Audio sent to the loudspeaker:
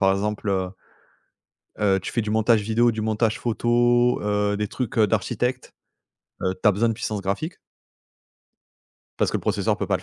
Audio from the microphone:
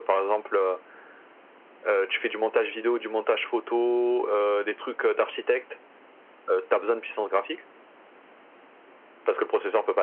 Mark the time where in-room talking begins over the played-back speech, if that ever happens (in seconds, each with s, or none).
none